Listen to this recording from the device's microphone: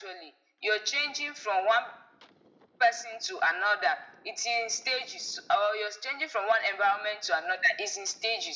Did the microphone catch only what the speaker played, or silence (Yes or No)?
Yes